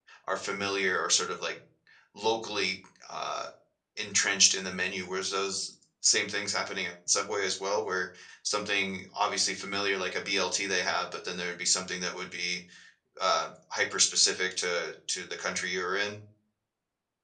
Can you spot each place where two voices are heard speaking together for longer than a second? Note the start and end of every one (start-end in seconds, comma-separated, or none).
none